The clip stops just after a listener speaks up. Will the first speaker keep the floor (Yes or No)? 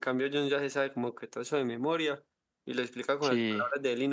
Yes